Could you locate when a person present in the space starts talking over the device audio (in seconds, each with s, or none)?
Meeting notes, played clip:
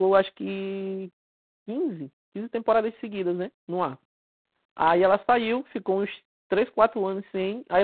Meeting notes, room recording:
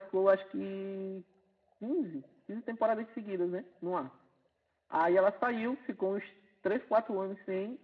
none